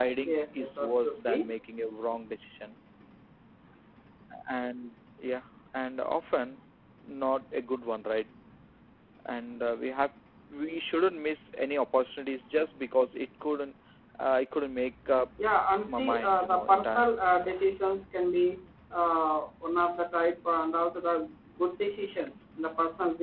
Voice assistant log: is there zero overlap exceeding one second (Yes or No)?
No